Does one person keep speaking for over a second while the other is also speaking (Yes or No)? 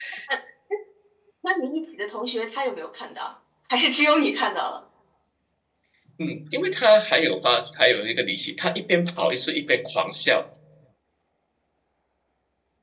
No